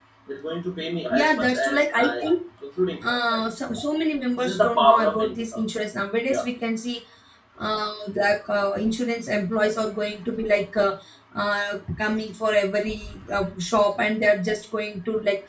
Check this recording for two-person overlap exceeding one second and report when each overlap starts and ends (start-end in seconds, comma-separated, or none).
1.1-2.3, 4.4-5.6